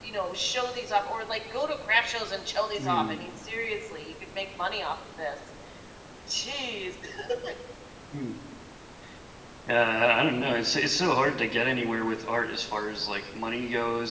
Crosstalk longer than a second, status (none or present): none